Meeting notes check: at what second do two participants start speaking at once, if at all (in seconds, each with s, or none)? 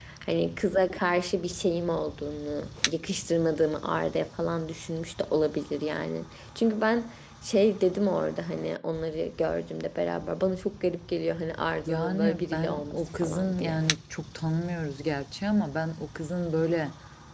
11.9 s